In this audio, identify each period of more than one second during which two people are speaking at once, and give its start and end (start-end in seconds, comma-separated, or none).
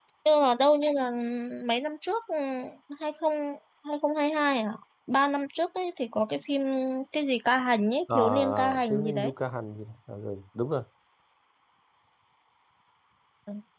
8.1-9.3